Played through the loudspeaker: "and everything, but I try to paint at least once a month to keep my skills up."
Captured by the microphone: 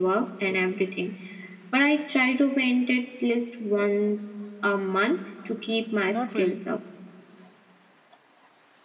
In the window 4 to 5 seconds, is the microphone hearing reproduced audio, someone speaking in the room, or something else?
echo only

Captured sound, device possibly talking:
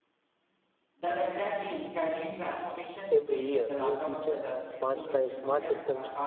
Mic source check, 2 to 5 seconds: both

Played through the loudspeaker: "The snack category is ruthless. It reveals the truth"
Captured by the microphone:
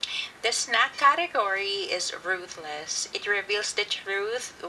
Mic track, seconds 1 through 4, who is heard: echo only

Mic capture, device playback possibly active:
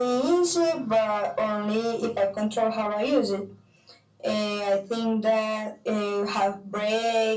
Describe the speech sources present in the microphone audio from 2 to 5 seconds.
echo only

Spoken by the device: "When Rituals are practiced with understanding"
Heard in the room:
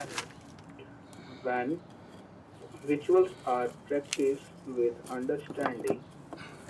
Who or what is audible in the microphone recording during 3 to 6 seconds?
echo only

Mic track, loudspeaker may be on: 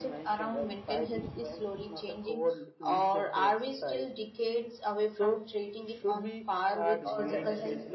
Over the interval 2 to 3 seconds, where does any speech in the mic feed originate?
echo only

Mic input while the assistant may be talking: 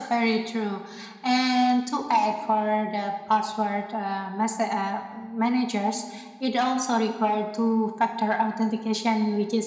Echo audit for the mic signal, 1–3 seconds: echo only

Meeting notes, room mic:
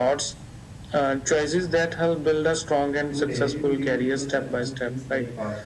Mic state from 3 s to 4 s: both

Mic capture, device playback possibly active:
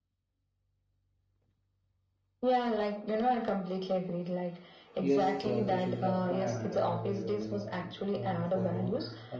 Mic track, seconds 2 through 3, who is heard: echo only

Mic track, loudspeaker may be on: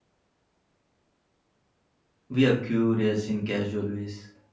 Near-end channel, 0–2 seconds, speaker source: neither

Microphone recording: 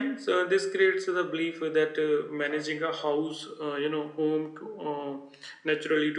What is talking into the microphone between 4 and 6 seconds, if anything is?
echo only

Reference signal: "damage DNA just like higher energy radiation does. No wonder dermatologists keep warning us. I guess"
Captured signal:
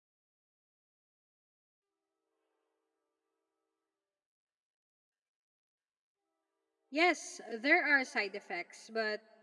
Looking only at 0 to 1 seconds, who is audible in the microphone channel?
neither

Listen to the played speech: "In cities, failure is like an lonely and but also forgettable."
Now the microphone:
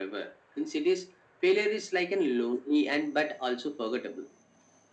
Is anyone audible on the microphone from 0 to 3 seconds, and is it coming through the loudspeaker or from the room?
echo only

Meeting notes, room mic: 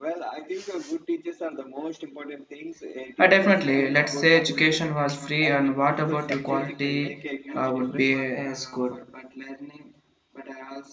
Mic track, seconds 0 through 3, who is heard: echo only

